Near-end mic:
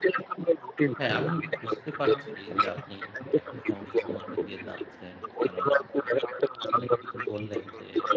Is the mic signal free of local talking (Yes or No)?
No